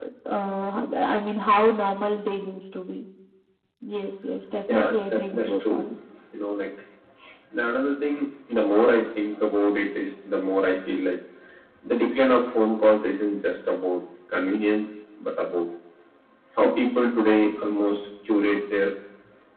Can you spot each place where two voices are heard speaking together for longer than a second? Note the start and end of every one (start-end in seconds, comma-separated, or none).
4.7-6.0